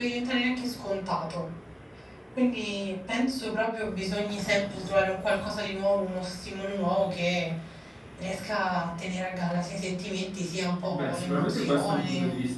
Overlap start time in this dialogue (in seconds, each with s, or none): 10.9 s